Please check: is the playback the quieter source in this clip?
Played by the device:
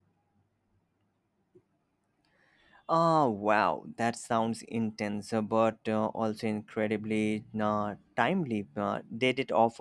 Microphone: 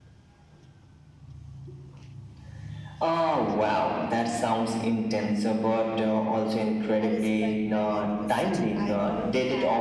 No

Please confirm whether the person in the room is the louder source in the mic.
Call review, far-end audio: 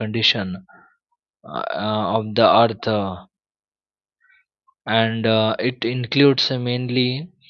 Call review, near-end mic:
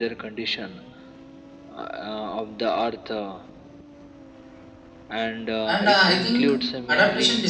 Yes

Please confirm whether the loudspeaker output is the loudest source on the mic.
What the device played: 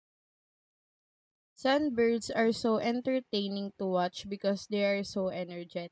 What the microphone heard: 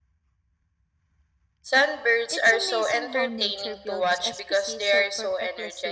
Yes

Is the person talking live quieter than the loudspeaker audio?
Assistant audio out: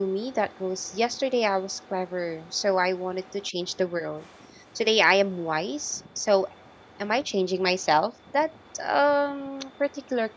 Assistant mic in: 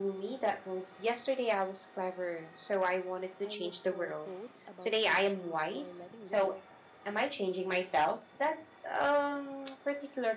Yes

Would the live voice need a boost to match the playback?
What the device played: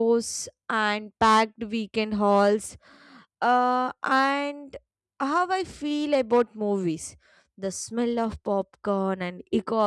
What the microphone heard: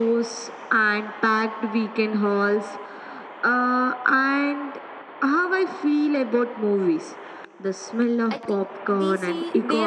Yes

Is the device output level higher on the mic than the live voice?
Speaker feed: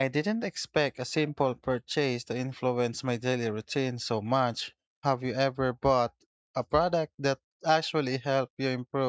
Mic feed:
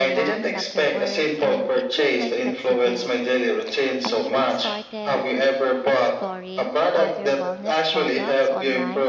Yes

